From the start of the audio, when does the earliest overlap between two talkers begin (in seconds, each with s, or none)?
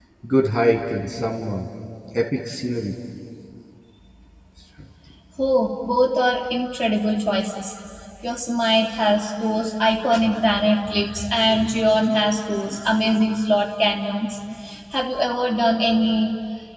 none